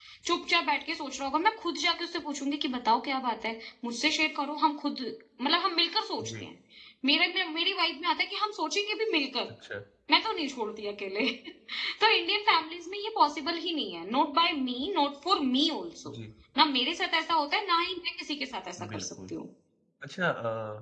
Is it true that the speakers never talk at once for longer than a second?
Yes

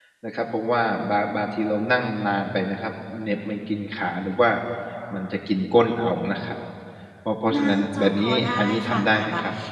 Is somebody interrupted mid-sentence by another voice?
Yes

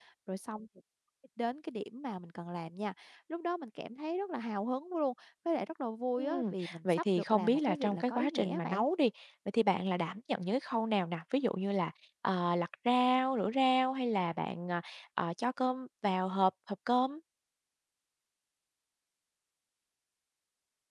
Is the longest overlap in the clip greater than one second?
Yes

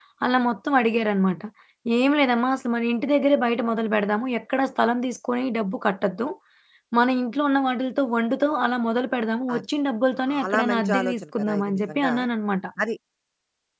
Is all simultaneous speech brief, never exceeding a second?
No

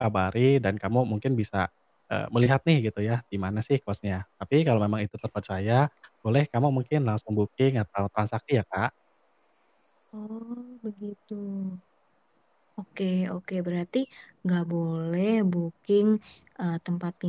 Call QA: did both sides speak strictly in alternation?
Yes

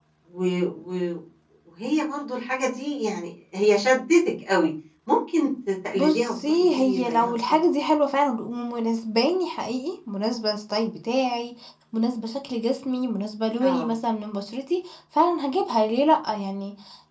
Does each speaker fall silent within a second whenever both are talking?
No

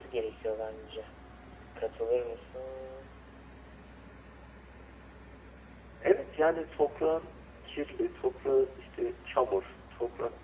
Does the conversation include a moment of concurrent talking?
No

